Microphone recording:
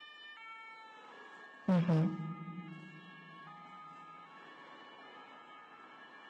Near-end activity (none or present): present